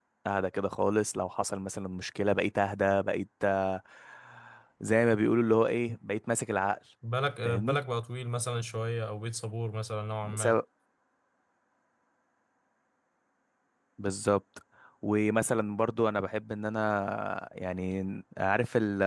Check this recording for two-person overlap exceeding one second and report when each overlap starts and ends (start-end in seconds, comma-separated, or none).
none